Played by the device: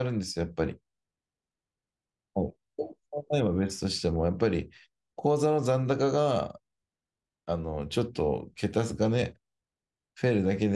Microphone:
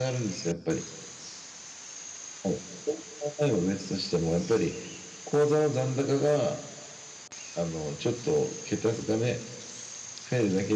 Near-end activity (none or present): none